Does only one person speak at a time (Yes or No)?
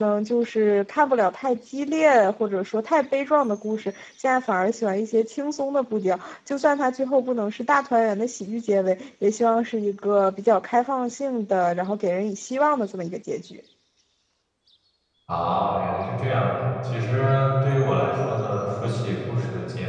Yes